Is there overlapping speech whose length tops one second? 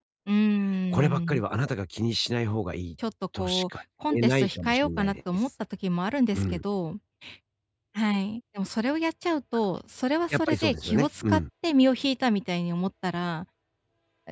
Yes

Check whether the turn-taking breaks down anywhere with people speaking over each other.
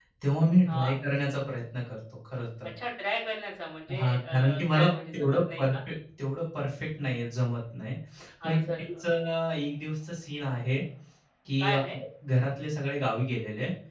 Yes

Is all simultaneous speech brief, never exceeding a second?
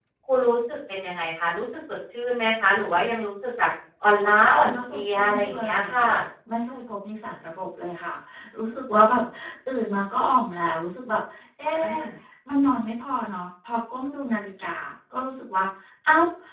No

